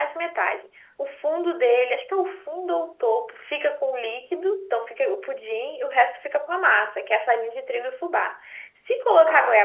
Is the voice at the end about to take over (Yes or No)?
No